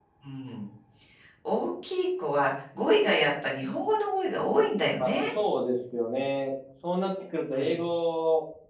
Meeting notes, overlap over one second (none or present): none